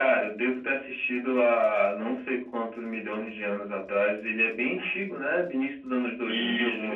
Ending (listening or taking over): taking over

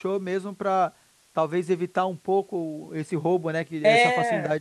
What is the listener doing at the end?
taking over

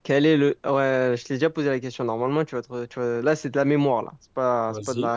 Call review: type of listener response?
listening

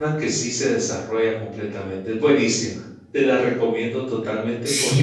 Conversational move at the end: taking over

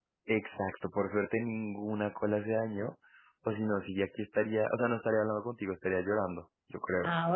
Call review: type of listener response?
taking over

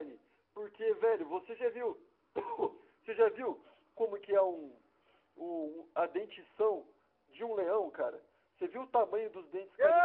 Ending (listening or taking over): taking over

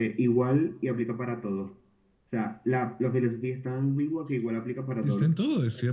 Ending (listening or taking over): taking over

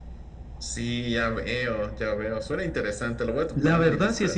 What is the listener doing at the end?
taking over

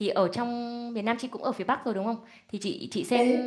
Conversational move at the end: listening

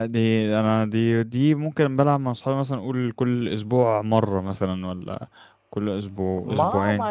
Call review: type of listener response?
taking over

